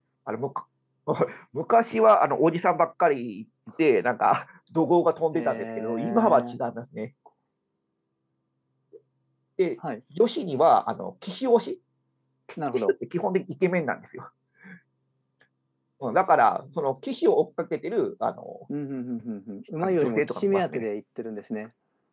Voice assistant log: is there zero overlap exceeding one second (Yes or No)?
No